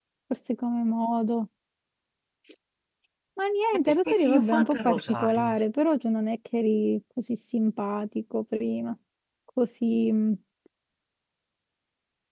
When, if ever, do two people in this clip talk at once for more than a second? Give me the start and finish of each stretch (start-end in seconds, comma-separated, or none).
3.7-5.5